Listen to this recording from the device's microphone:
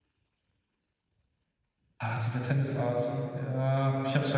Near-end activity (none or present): present